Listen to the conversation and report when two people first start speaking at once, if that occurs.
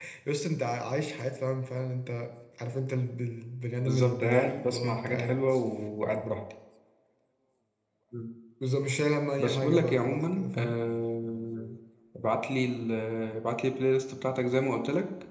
3.8 s

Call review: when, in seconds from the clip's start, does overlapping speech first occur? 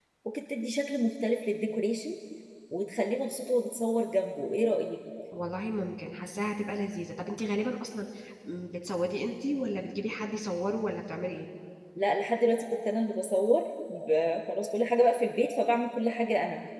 none

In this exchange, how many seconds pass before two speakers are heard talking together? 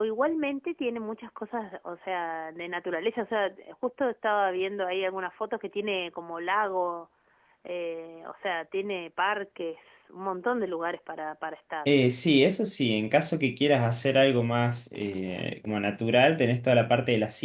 none

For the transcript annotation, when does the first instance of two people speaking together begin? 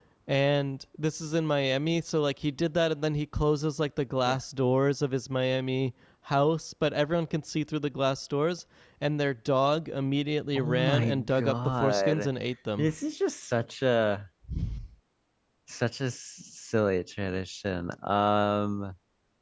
10.6 s

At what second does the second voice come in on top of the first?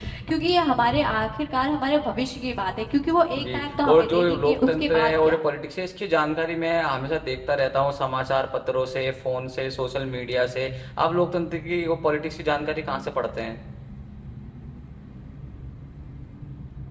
3.4 s

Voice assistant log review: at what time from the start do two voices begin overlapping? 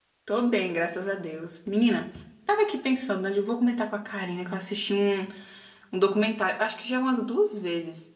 none

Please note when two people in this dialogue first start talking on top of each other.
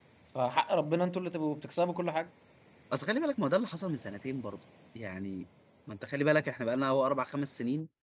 none

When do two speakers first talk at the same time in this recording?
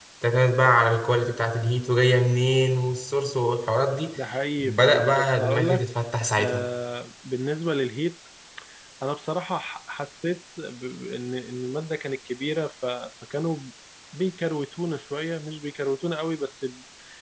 4.6 s

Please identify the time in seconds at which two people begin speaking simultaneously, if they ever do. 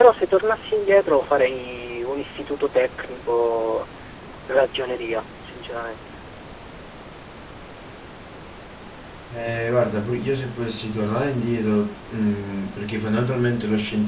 none

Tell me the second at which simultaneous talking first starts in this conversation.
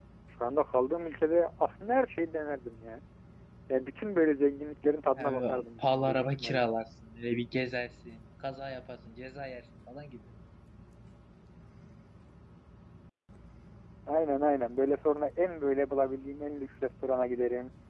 5.2 s

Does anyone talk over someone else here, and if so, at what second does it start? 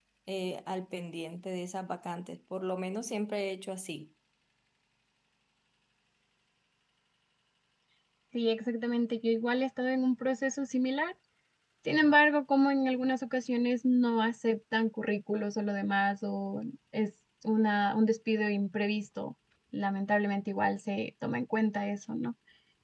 none

